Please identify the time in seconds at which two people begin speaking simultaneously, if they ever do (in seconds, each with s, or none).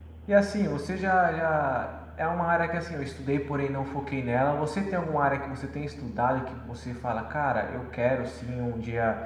none